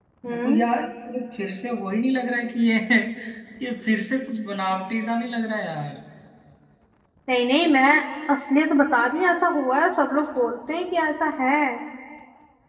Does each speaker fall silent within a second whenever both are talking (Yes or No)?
Yes